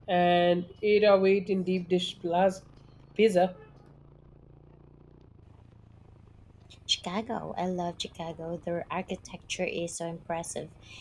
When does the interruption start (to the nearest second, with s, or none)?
none